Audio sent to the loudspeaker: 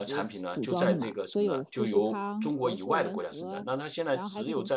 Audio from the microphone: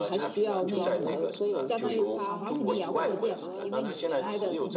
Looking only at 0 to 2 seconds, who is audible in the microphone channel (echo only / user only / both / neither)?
both